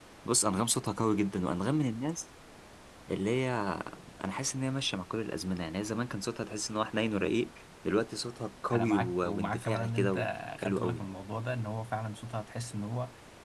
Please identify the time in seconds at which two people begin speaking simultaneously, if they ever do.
8.7 s

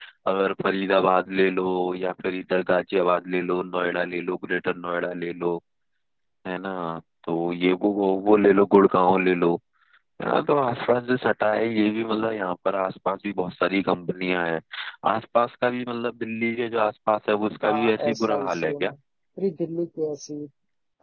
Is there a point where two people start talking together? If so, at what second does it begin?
17.6 s

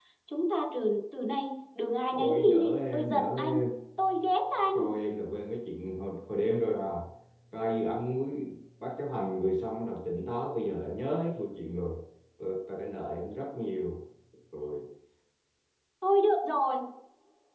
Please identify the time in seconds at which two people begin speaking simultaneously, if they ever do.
2.1 s

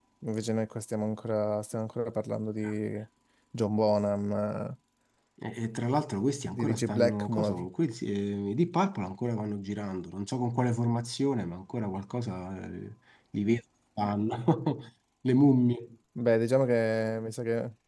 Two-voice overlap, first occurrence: 6.5 s

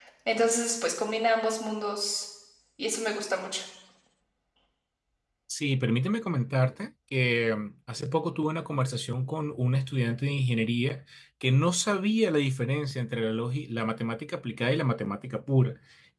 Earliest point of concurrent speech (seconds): none

